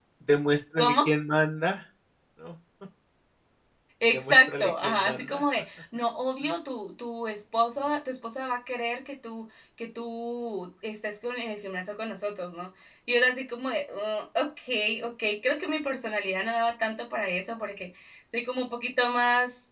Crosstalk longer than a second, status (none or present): present